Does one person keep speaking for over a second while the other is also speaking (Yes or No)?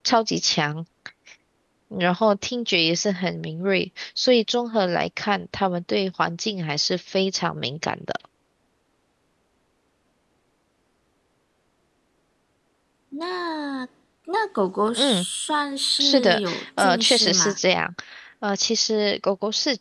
Yes